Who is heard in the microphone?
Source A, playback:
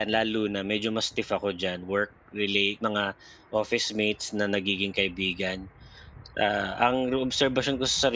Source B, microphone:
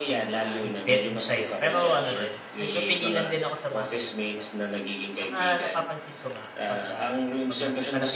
both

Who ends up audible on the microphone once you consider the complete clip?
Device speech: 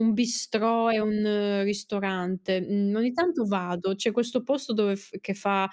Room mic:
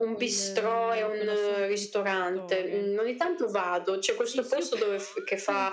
both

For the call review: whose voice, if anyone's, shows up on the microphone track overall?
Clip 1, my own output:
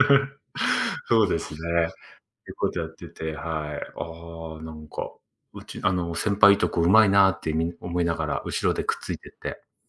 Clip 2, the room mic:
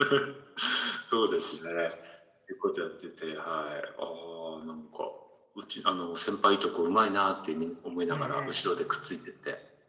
both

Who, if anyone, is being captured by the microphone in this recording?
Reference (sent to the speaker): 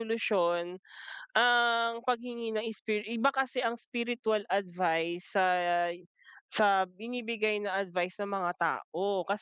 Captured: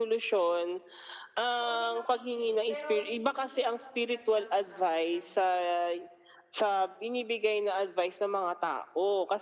both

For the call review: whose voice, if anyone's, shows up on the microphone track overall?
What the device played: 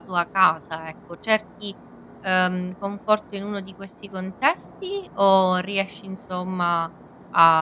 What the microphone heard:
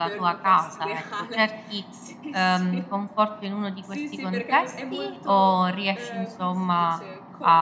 both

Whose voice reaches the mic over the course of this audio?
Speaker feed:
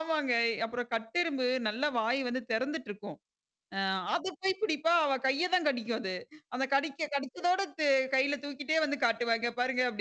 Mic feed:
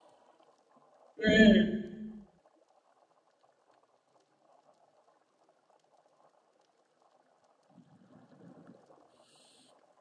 user only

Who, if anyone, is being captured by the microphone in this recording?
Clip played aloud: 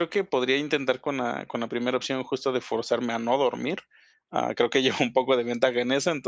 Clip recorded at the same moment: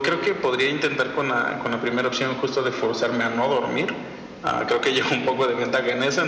echo only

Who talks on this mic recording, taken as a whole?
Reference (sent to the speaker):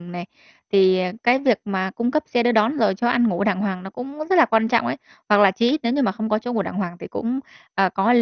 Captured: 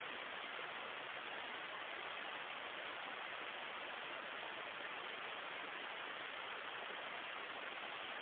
neither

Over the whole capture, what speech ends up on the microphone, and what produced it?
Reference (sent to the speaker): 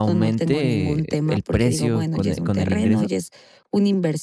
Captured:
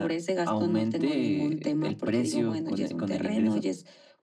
echo only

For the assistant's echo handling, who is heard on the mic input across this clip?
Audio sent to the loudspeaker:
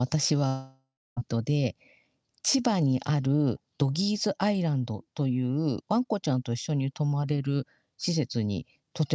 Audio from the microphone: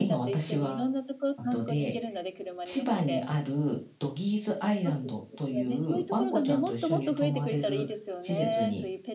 both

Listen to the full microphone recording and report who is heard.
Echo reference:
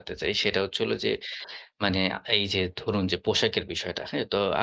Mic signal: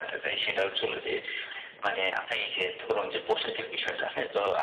echo only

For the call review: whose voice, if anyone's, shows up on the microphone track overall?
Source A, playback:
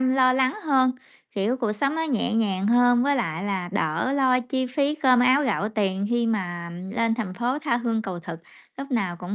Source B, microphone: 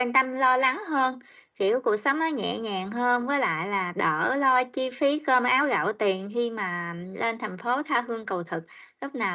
echo only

